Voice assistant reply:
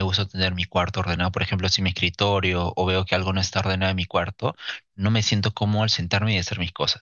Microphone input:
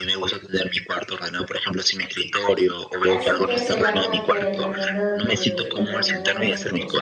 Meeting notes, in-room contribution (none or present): present